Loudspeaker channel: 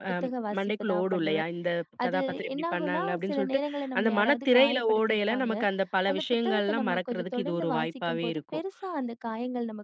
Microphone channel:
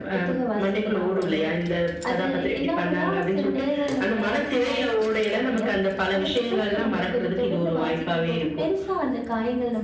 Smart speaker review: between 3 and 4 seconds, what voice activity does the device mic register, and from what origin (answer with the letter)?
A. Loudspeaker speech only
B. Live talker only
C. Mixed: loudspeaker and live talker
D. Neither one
A